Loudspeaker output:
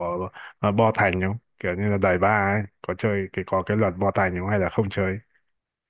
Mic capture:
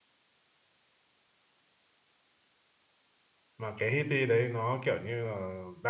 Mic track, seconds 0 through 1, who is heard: neither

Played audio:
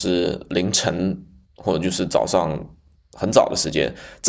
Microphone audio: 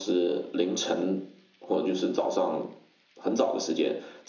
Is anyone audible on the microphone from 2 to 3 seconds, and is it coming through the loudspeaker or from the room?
echo only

